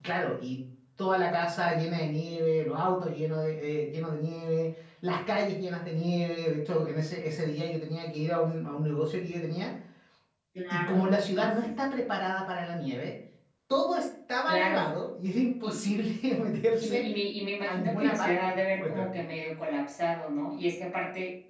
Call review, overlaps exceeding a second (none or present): present